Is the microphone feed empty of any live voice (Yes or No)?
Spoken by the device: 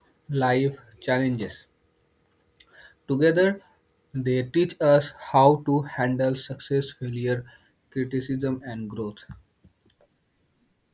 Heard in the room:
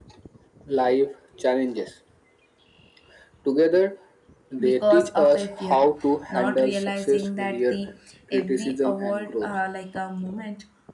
No